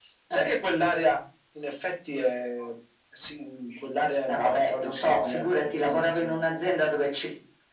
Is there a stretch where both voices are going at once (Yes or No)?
Yes